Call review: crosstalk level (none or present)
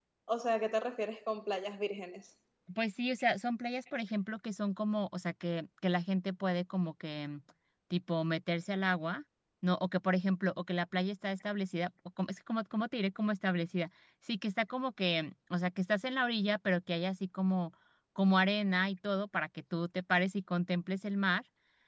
none